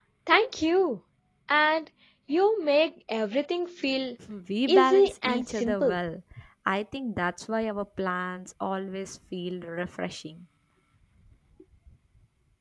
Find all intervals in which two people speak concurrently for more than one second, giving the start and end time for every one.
4.7-6.0

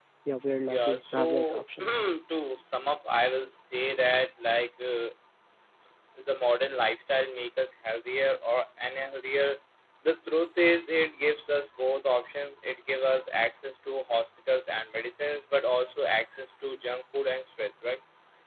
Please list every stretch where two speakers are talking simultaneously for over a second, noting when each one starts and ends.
0.7-2.0

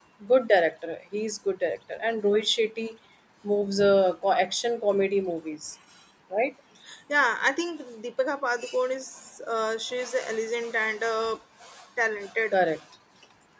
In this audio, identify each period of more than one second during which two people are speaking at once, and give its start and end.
none

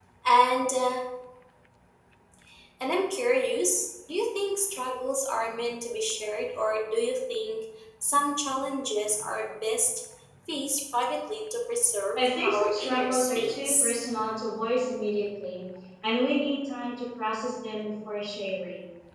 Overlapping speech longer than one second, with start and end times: 12.2-13.9

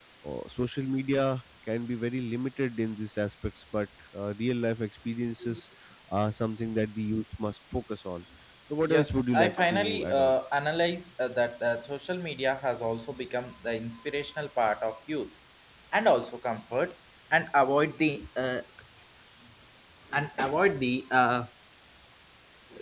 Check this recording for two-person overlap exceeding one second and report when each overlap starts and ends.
8.9-10.3

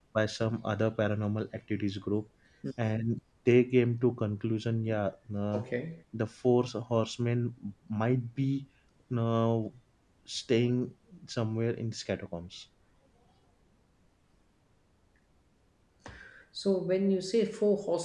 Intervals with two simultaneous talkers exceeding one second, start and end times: none

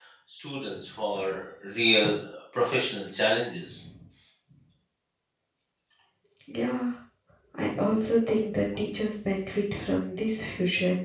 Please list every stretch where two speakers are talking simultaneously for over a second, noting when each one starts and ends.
none

